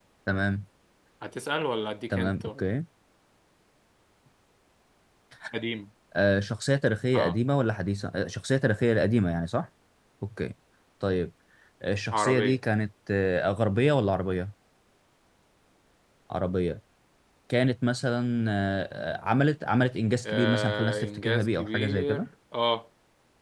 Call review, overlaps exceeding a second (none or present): present